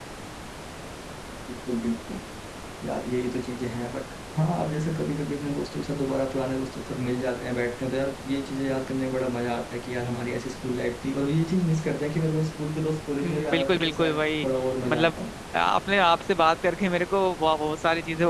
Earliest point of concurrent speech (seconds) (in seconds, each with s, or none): 13.2 s